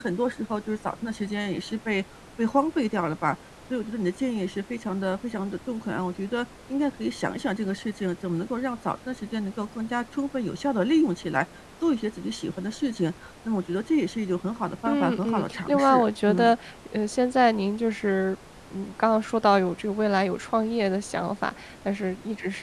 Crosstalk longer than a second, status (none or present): present